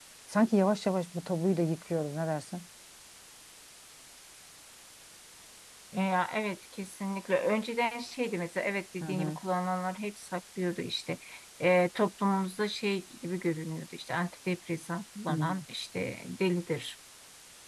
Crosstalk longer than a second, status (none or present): none